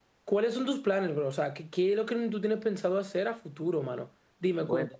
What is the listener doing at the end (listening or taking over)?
listening